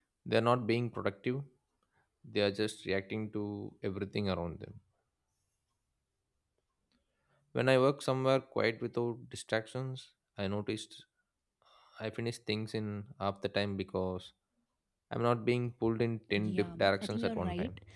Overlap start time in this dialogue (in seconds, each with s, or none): 16.3 s